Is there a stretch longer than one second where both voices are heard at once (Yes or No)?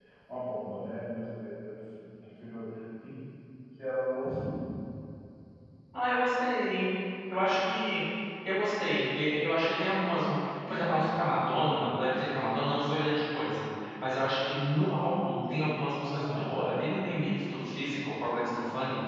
No